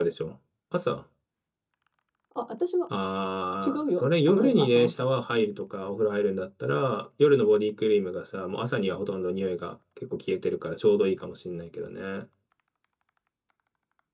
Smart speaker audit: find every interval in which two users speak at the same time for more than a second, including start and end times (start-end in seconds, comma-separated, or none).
3.6-4.9